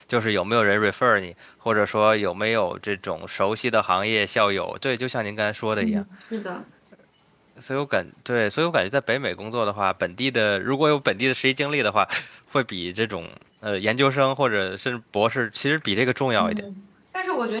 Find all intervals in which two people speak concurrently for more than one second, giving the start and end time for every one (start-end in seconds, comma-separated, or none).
none